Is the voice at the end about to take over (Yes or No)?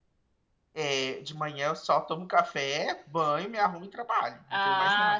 Yes